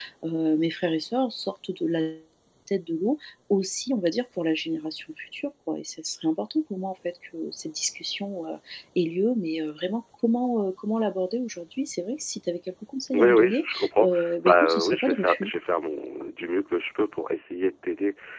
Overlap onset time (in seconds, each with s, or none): 13.1 s